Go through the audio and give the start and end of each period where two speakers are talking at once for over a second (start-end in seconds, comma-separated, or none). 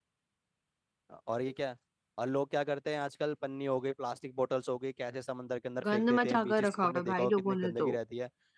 5.9-8.0